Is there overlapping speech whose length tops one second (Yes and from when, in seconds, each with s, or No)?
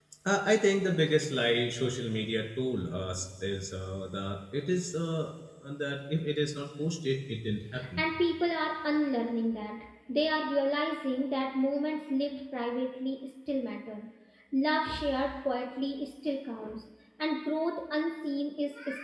No